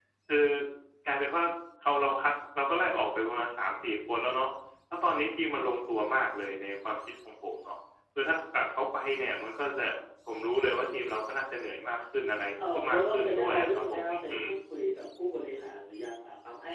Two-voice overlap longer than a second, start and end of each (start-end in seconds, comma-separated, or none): 12.7-14.5